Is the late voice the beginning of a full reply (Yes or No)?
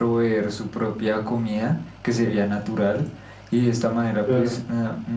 No